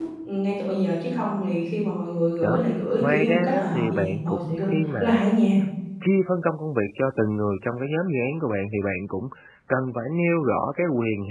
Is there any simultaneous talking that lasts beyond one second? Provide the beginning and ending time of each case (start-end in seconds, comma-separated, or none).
3.0-4.6